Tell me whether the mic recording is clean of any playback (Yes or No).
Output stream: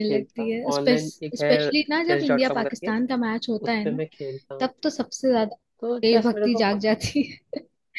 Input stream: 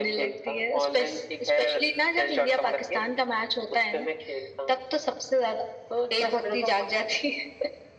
No